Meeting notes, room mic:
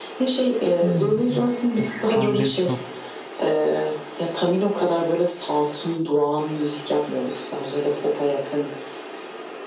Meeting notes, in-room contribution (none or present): present